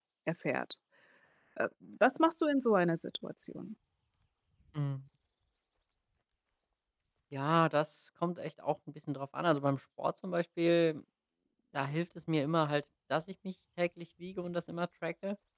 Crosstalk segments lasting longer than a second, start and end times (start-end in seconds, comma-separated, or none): none